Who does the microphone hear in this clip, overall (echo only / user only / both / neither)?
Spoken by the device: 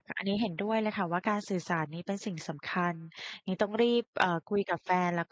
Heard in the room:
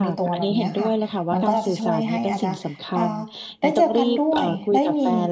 both